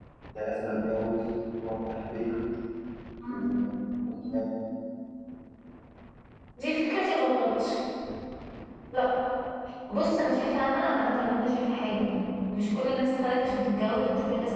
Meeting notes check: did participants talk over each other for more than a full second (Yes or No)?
No